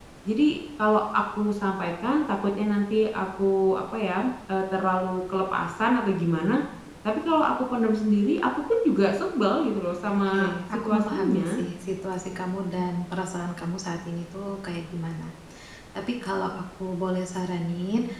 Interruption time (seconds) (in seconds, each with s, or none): 10.1 s